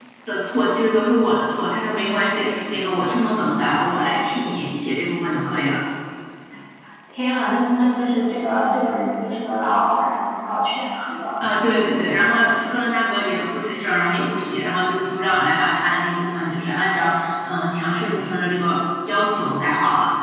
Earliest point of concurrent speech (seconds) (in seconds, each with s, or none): none